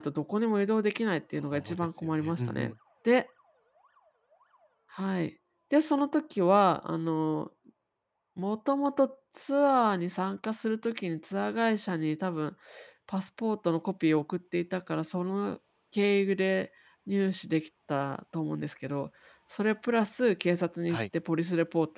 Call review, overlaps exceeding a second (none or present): present